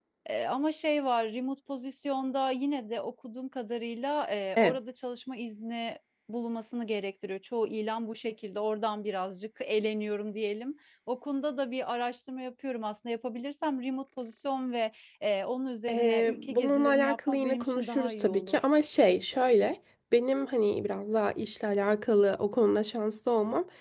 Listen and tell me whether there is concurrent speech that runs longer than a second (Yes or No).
Yes